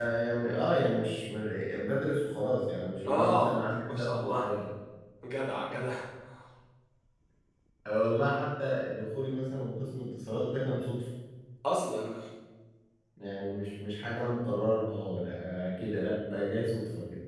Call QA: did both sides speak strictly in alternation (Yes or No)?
No